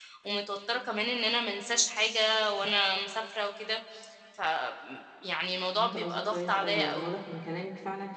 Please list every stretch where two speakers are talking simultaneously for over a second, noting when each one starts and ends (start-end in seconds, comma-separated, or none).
5.7-7.1